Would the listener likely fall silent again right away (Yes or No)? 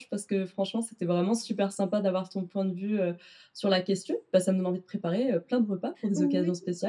No